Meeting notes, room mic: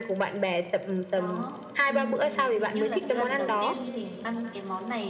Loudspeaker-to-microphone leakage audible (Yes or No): Yes